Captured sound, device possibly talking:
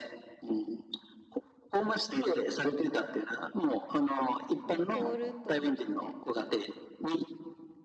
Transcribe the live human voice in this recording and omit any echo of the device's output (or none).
もう凍ると思って。